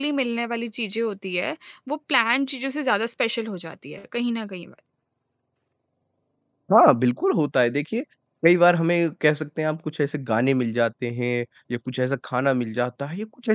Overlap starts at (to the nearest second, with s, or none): none